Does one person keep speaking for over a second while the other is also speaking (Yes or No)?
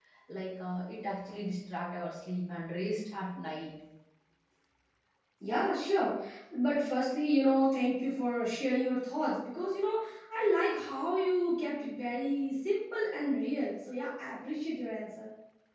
No